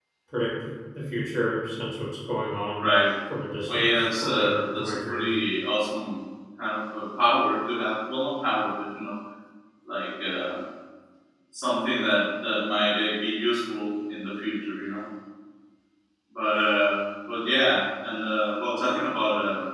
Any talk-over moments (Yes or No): Yes